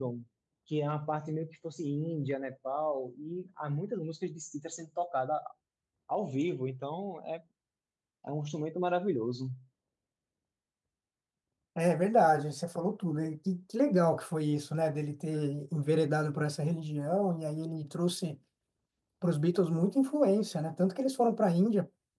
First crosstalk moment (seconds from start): none

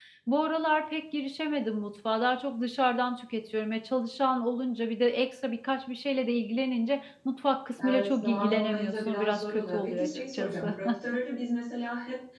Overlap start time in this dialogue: 8 s

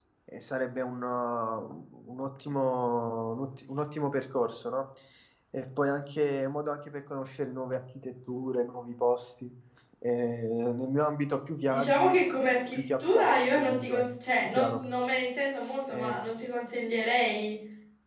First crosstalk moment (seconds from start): 12 s

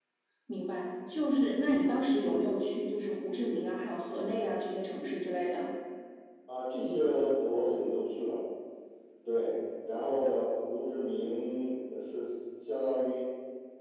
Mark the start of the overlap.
none

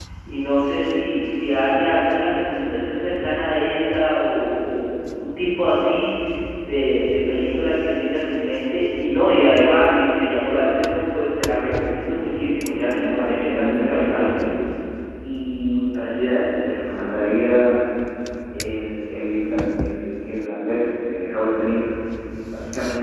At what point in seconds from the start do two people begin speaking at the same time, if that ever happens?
12 s

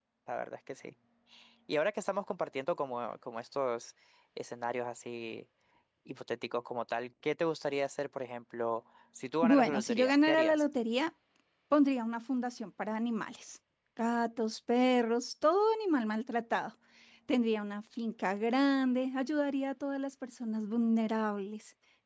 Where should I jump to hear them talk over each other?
9 s

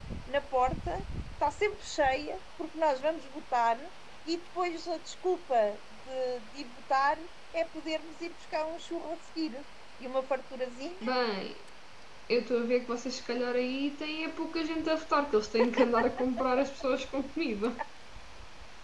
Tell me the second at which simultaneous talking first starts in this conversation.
none

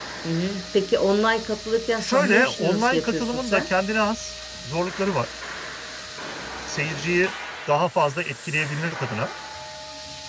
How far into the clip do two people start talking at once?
2 s

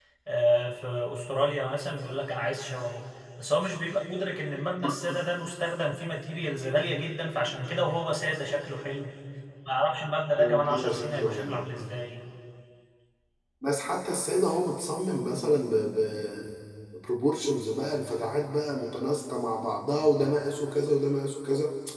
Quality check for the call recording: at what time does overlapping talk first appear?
10 s

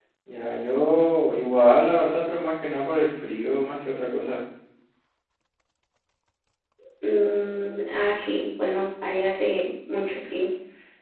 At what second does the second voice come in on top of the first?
none

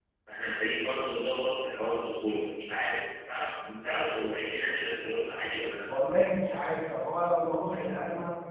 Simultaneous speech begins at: none

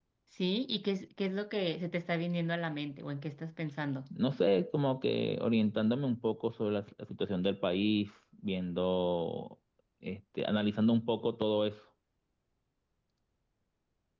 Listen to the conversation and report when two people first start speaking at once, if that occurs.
none

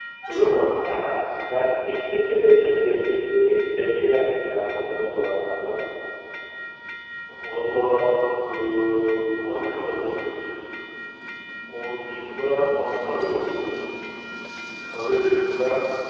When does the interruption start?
none

